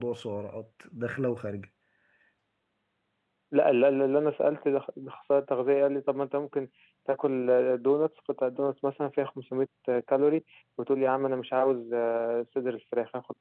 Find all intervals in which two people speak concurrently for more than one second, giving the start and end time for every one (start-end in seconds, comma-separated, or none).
none